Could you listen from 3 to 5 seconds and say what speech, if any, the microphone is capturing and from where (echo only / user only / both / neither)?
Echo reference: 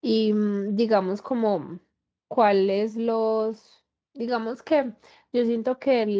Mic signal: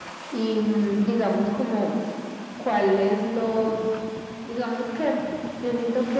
echo only